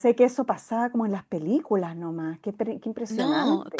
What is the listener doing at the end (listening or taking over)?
taking over